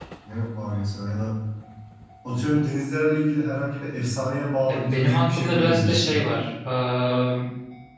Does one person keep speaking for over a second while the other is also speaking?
Yes, from 4.7 s

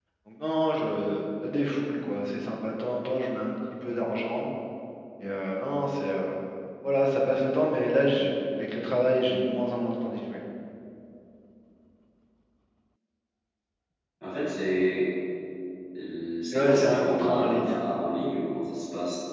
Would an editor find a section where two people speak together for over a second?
Yes, from 16.5 s

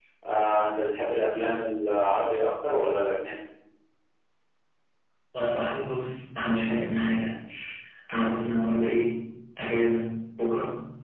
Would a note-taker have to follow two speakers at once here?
No

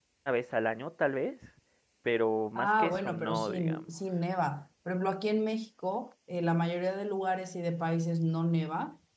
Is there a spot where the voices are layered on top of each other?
Yes, from 2.5 s

